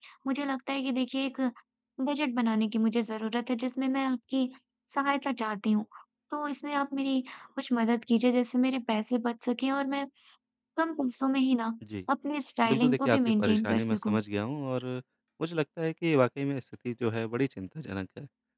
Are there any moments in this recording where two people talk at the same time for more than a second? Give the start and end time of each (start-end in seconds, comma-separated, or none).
12.7-14.2